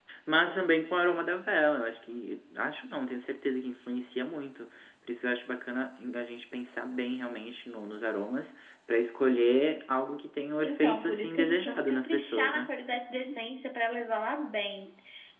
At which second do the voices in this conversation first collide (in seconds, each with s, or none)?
10.6 s